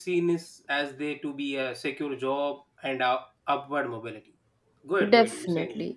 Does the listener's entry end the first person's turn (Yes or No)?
Yes